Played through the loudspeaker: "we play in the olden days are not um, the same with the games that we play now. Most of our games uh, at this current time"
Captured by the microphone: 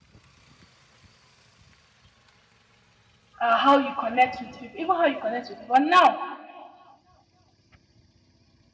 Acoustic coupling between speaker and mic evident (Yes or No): No